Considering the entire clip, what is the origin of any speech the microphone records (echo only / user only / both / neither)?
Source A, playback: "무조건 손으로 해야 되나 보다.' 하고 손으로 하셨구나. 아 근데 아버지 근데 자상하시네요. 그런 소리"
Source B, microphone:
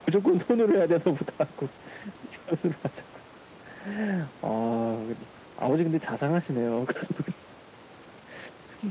echo only